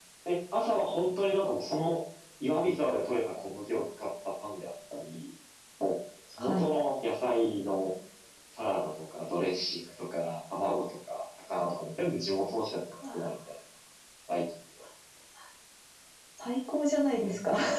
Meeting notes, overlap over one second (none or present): none